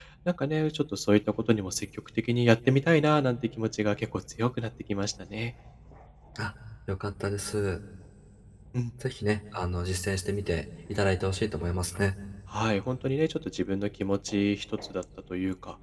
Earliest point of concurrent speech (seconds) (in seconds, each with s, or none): none